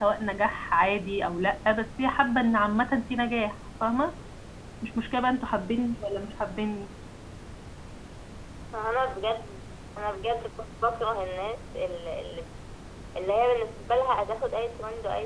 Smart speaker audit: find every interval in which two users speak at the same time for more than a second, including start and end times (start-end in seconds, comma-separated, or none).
none